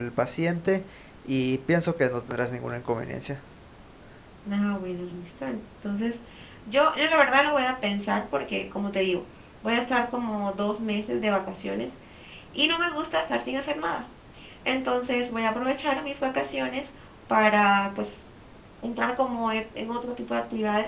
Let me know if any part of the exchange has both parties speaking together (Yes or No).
No